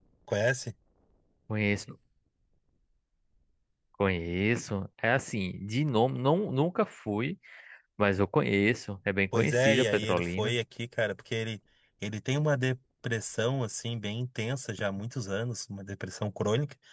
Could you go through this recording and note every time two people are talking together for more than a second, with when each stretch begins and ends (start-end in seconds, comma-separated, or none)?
9.3-10.6